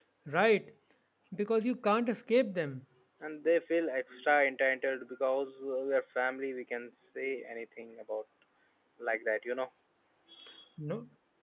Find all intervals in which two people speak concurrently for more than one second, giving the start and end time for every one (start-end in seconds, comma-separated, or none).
none